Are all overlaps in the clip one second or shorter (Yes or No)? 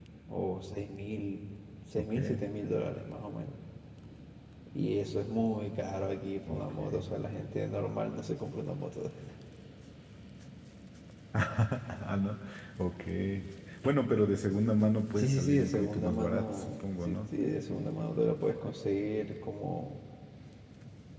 No